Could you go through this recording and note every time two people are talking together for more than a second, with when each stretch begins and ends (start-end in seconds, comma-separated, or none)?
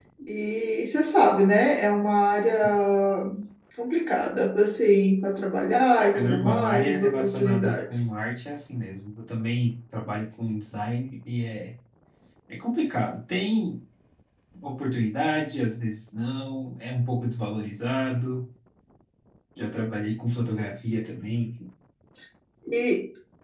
6.1-8.1